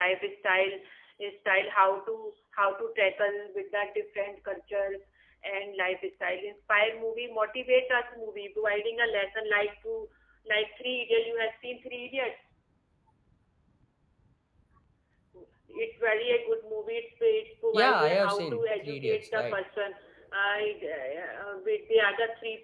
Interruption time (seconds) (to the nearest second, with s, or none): 18 s